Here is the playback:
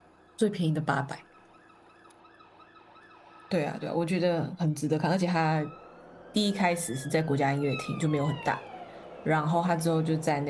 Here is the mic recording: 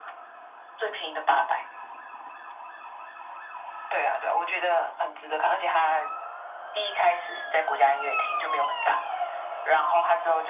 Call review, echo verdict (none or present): present